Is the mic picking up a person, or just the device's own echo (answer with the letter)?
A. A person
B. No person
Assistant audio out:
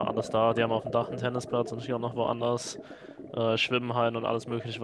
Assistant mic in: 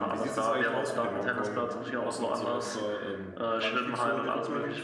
A